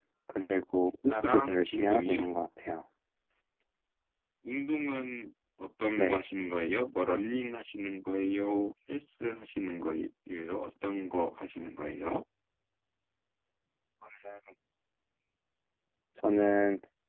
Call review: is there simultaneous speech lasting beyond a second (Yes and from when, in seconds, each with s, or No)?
Yes, from 1.1 s